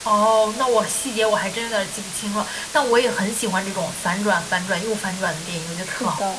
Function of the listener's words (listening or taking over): taking over